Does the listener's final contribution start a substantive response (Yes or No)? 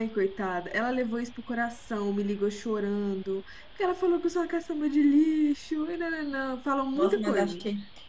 Yes